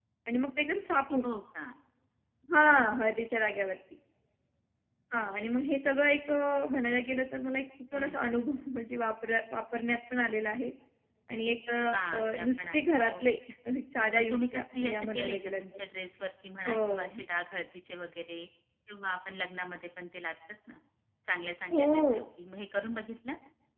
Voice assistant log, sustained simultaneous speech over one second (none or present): present